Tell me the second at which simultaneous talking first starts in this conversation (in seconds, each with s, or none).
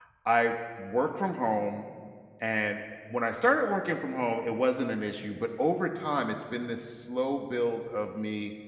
none